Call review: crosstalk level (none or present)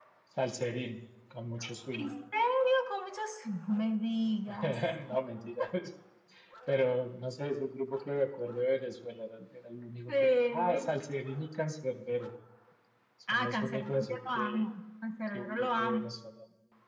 present